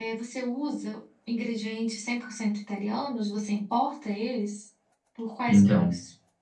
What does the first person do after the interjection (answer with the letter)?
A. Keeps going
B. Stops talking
B